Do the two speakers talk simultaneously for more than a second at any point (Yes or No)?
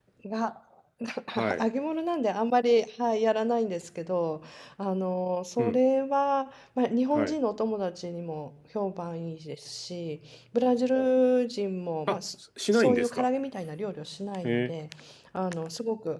No